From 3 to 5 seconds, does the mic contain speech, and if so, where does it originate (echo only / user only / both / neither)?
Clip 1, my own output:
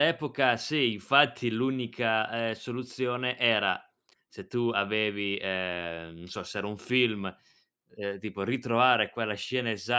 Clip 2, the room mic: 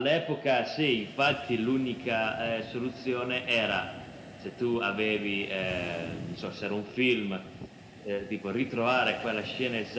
echo only